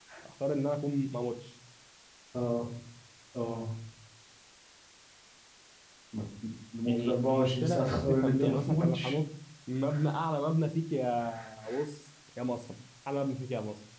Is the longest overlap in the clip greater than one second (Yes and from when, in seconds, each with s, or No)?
Yes, from 6.9 s